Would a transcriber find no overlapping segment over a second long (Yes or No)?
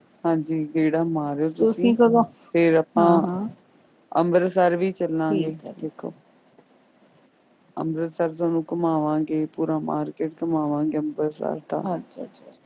Yes